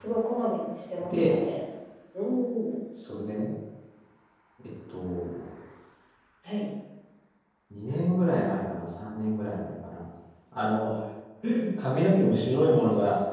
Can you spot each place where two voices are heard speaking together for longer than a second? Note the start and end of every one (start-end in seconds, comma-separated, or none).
none